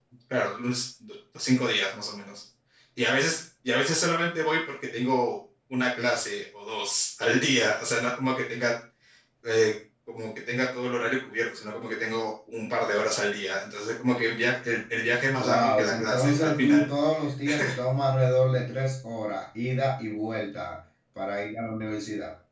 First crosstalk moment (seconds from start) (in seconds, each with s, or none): 15.4 s